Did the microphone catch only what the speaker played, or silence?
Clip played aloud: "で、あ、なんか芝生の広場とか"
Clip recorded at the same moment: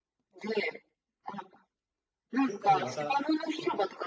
No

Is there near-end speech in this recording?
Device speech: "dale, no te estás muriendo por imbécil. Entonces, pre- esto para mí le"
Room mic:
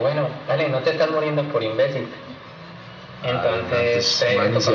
Yes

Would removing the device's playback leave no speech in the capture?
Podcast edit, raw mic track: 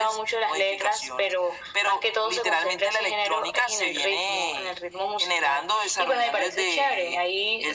Yes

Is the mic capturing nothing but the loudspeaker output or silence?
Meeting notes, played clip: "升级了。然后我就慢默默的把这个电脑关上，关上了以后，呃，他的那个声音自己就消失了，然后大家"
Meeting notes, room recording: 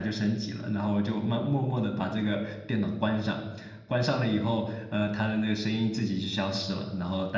Yes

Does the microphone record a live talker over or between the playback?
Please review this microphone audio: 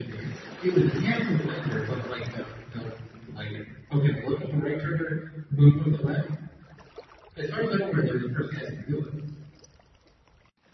No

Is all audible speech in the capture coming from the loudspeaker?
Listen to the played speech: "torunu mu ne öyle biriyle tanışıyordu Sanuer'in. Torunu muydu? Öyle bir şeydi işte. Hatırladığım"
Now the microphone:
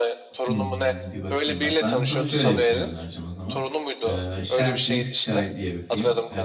No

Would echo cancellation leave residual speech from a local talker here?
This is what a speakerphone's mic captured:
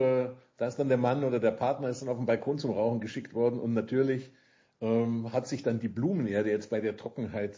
Yes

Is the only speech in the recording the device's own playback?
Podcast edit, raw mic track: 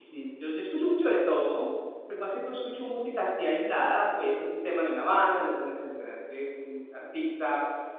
No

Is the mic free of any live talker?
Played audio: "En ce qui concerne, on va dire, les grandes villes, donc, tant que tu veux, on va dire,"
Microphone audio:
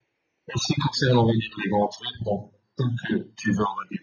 Yes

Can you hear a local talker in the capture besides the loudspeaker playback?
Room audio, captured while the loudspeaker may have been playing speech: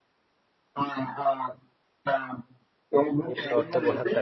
Yes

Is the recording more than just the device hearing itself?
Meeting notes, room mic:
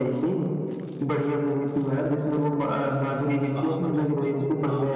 Yes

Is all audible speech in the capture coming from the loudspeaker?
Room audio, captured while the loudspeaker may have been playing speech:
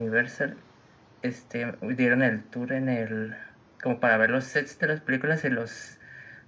Yes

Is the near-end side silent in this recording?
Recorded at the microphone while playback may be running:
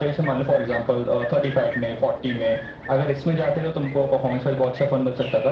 Yes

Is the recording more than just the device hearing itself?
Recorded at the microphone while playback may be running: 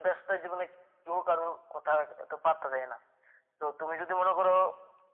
No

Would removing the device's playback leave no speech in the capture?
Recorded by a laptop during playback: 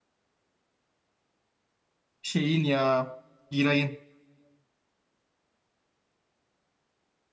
No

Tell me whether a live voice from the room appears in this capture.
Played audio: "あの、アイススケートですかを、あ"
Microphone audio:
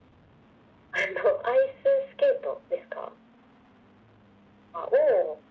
No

